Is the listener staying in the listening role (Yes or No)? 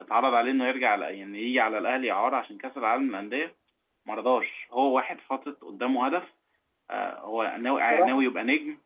Yes